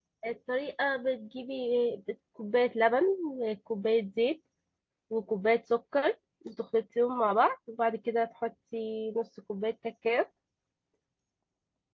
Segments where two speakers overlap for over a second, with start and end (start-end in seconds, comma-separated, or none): none